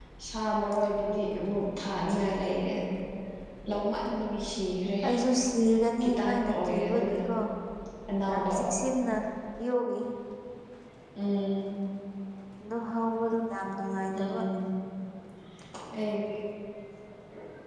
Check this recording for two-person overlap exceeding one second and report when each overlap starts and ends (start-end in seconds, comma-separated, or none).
6.0-7.2